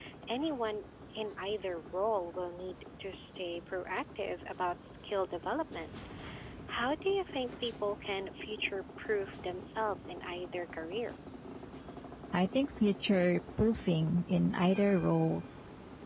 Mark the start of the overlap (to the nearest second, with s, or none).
none